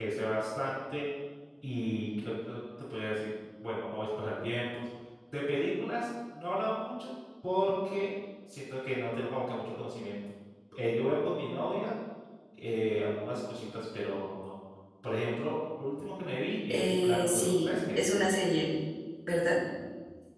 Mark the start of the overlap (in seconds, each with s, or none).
16.7 s